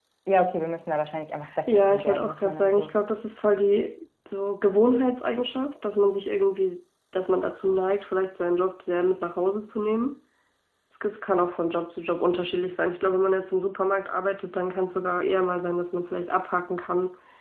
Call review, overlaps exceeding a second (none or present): present